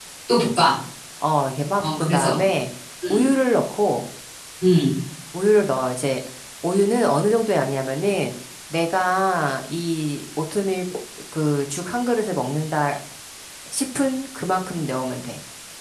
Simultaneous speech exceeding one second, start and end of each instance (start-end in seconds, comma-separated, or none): none